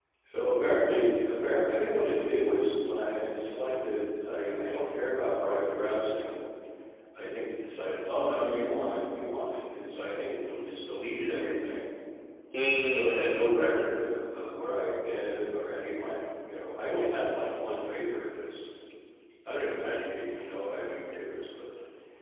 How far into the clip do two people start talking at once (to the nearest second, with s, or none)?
13 s